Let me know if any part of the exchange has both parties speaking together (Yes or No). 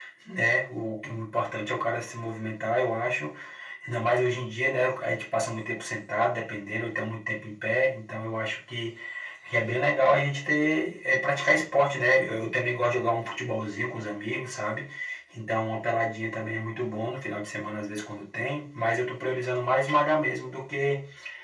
No